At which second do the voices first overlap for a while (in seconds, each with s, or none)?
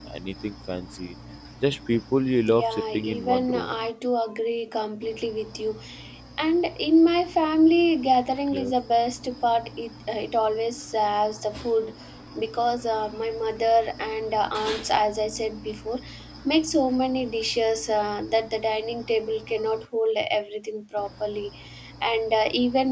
2.5 s